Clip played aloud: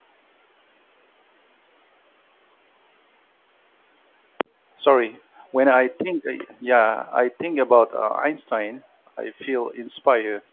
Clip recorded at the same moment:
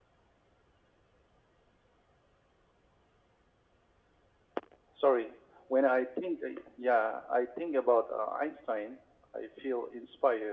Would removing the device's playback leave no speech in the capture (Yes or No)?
Yes